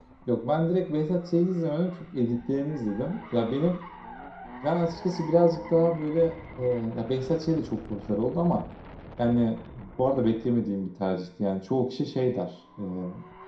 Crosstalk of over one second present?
No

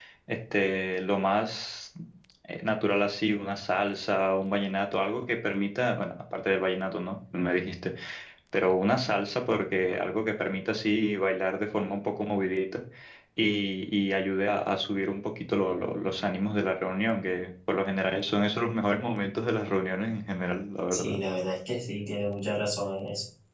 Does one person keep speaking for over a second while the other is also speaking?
No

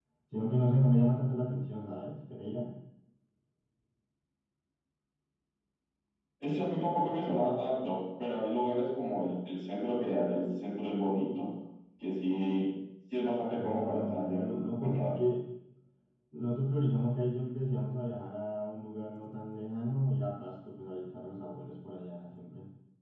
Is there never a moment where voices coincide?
No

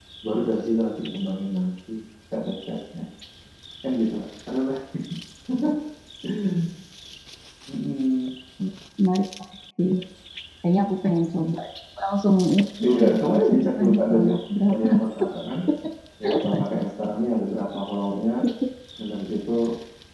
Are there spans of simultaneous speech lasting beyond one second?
Yes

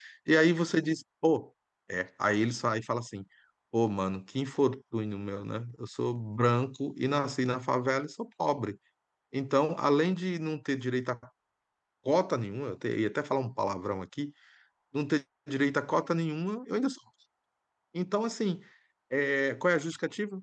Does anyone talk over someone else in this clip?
No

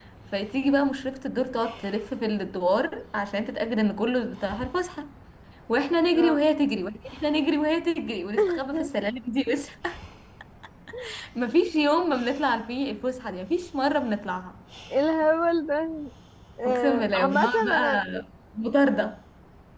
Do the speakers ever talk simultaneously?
Yes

